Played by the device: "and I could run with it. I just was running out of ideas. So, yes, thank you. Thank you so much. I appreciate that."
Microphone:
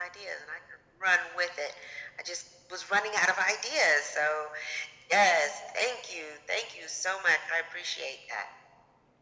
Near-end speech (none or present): none